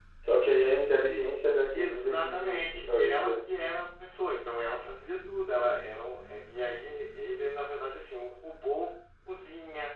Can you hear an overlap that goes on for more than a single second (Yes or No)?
Yes